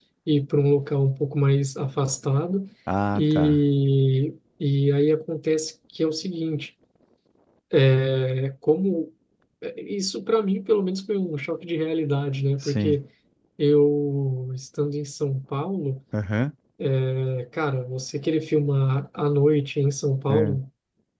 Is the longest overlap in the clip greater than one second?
No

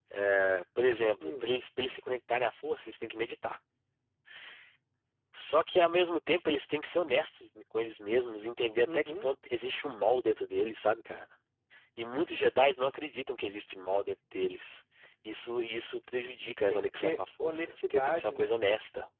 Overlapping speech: Yes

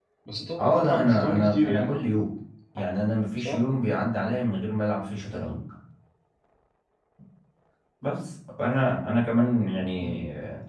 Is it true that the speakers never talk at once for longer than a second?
No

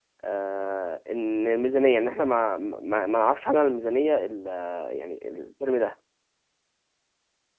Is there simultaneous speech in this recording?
No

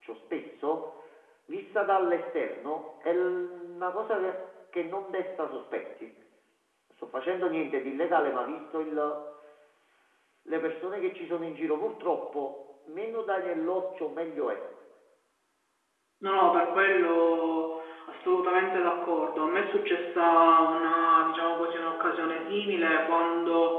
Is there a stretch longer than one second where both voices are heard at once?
No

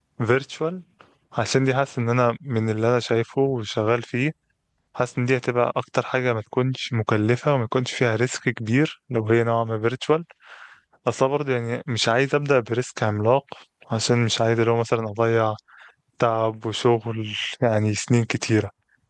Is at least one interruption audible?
No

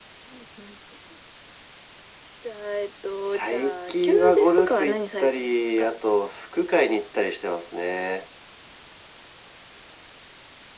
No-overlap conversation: No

